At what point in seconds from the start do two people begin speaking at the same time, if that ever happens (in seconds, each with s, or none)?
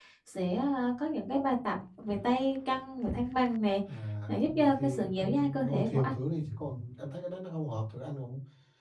4.3 s